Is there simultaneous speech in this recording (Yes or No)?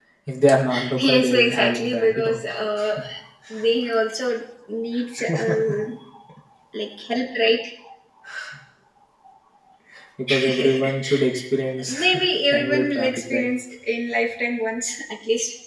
Yes